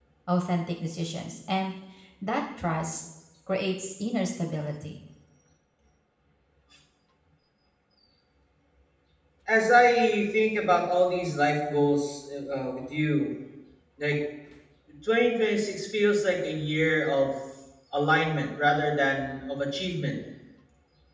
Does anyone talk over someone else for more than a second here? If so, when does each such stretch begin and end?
none

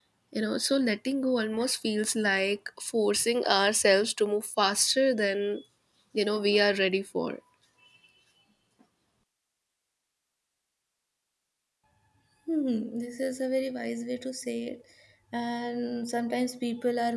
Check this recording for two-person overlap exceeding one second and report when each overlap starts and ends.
none

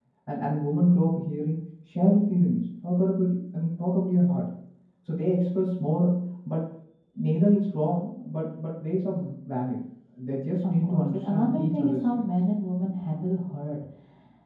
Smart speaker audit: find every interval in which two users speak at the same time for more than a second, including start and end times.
10.6-12.2

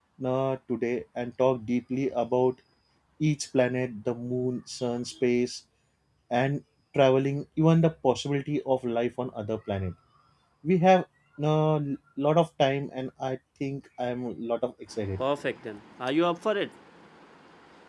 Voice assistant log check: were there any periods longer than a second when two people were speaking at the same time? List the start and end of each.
none

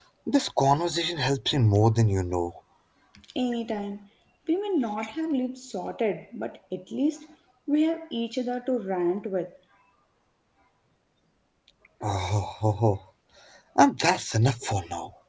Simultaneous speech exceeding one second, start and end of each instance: none

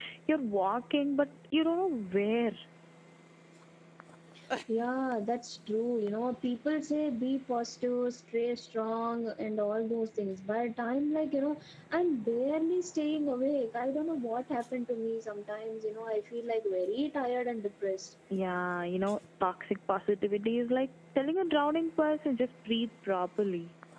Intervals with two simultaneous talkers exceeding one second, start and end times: none

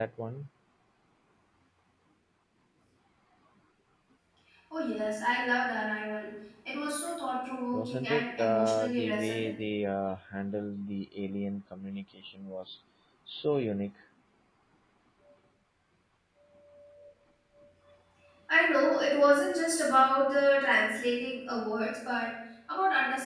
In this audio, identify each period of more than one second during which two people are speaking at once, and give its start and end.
7.7-9.6

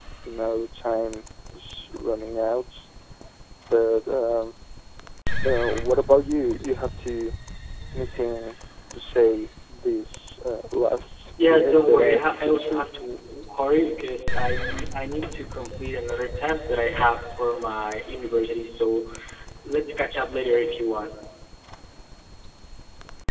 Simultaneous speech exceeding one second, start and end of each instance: 11.4-12.8

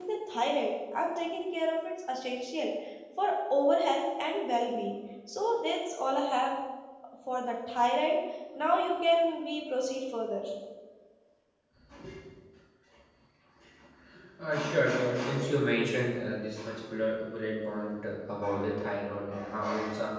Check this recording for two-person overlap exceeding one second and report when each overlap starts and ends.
none

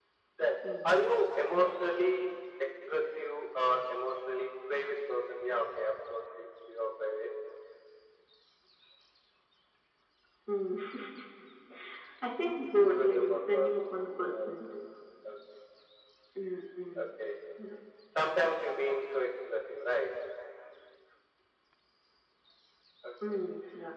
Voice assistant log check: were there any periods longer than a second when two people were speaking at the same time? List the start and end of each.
12.8-14.5

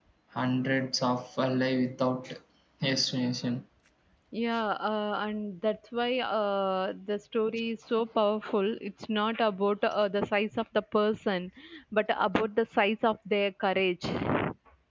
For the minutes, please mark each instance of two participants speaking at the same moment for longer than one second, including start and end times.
none

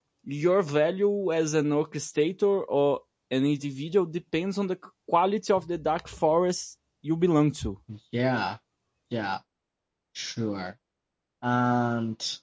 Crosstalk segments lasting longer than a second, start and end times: none

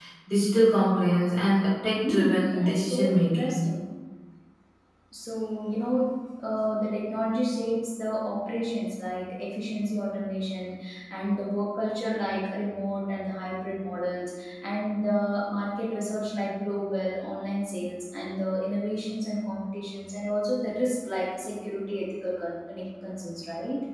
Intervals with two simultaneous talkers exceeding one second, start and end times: 1.9-3.6

